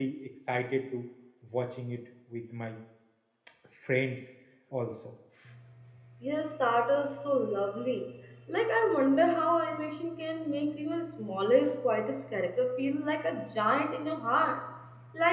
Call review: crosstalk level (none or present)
none